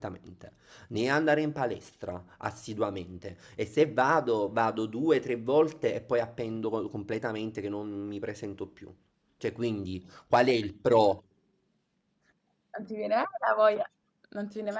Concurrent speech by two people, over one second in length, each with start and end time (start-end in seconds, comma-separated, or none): none